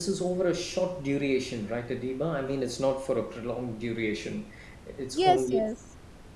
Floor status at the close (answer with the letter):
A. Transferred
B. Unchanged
A